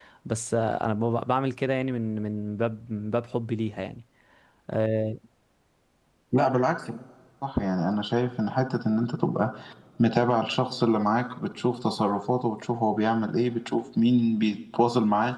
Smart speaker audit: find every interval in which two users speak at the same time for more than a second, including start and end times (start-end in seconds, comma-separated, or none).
none